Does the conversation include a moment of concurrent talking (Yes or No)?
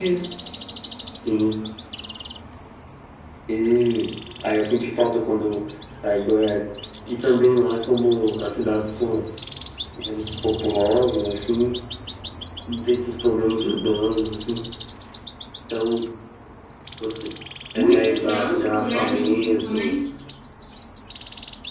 Yes